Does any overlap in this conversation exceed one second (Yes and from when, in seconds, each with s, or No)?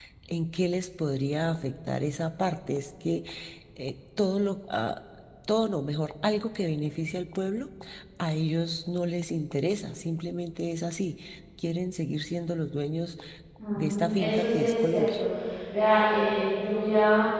Yes, from 13.8 s